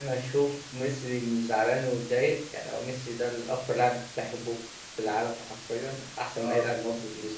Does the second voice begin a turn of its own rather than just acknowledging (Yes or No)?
No